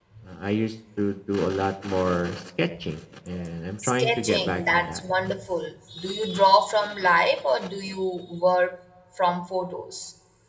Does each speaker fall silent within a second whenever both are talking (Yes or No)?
No